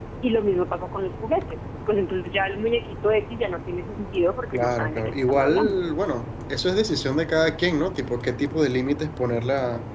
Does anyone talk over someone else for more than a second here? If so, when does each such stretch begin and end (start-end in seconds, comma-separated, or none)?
4.5-5.8